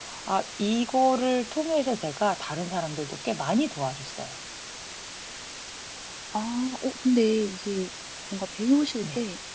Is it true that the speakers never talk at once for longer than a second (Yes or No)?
Yes